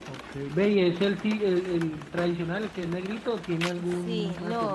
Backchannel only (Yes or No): No